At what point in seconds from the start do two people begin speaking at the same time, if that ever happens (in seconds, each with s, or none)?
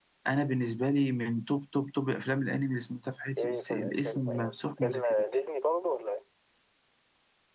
3.4 s